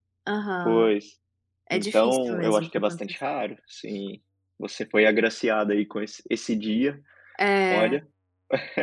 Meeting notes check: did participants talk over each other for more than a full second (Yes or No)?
Yes